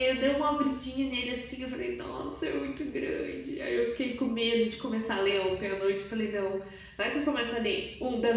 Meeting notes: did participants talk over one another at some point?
No

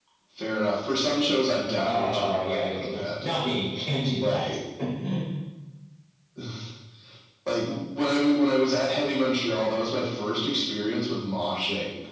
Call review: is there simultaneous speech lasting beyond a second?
Yes, from 1.8 s

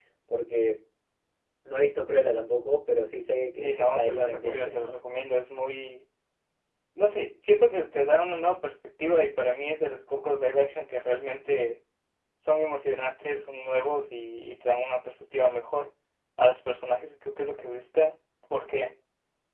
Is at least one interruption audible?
Yes, from 3.6 s

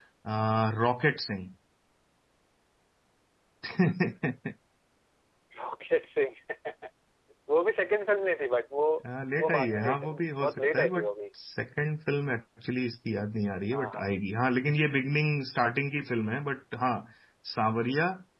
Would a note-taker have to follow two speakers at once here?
Yes, from 9.4 s

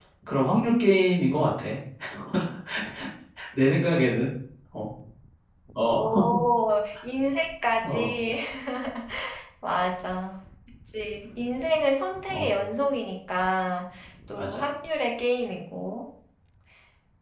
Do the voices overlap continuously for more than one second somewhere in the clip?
No

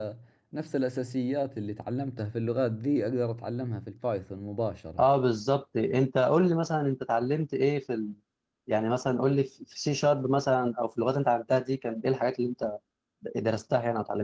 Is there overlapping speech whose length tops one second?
No

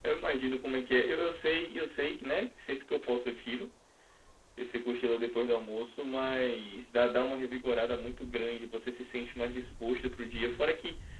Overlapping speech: No

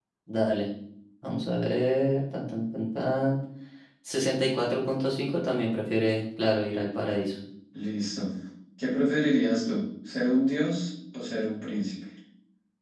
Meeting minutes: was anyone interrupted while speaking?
No

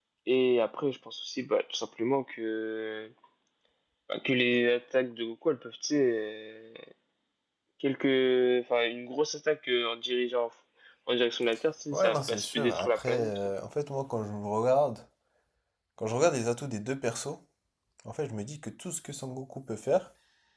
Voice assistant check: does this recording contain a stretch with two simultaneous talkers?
Yes, from 11.9 s

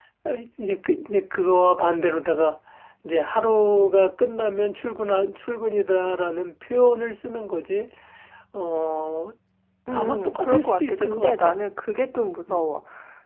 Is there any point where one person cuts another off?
Yes, from 9.9 s

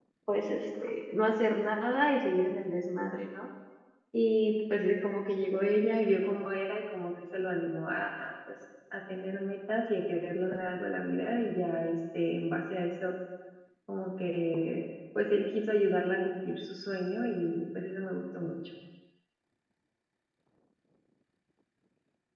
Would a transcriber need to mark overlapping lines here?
No

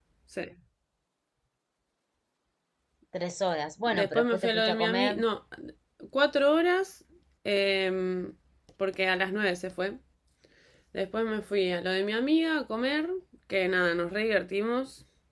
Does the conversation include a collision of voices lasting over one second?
Yes, from 3.9 s

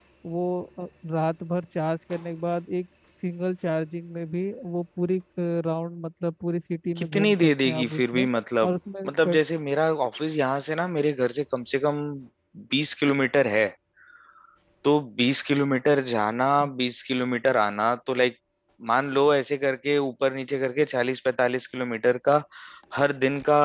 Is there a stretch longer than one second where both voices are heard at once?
Yes, from 7.0 s

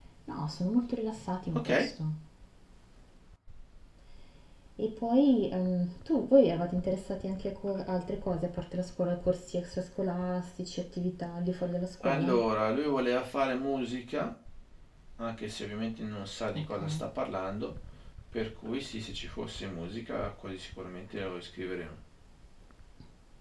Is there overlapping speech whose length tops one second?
No

